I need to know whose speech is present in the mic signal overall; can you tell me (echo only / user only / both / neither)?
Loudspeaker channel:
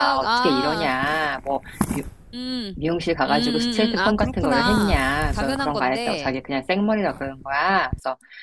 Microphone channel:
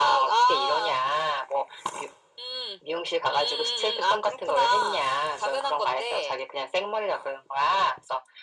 echo only